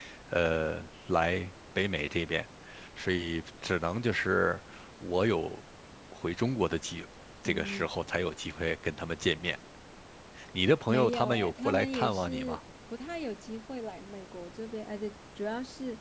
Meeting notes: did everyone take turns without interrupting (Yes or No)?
No